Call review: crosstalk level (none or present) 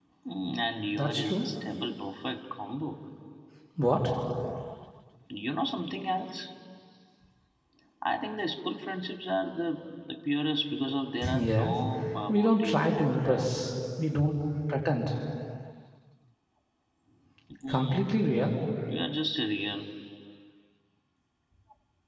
present